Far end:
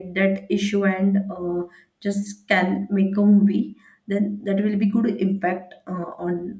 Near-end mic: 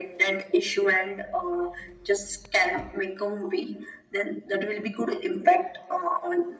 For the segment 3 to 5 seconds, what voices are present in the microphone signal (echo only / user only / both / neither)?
echo only